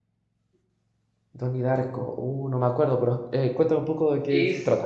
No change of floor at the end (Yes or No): No